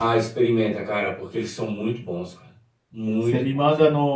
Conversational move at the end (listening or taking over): taking over